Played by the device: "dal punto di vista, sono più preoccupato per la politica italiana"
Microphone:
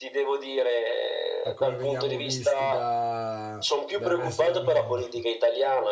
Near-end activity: present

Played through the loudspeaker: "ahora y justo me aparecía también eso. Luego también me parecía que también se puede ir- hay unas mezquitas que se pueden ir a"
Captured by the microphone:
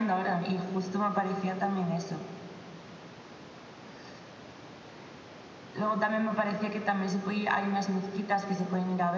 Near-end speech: none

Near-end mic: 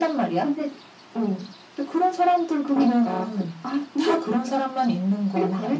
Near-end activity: none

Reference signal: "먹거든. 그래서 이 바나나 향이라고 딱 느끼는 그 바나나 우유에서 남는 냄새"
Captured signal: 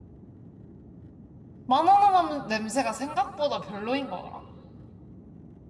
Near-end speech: present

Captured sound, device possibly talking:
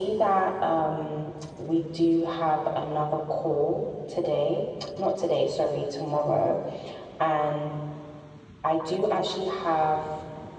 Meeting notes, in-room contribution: none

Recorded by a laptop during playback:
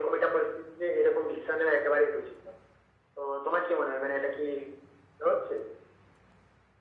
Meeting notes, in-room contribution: none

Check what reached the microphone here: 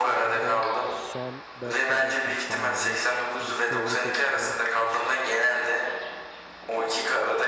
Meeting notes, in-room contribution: present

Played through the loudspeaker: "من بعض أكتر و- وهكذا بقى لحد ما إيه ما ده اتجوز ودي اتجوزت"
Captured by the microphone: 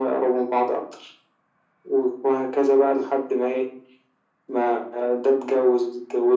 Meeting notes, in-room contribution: none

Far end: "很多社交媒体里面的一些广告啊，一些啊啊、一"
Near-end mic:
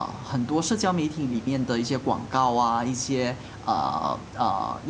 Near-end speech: none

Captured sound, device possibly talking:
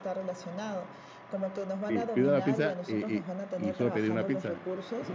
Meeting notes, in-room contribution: present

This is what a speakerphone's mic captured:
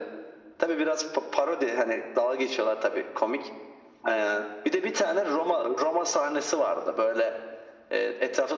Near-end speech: none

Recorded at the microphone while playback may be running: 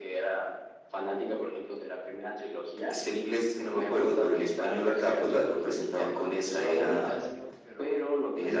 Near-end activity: present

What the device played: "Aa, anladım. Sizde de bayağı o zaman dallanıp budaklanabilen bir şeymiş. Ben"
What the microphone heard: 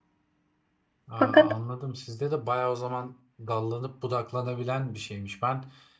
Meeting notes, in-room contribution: present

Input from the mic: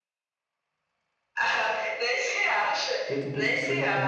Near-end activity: present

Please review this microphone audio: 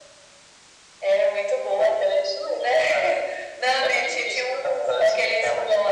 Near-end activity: none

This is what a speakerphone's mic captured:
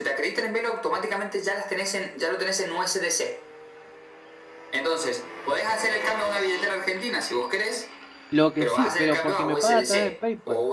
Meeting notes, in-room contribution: present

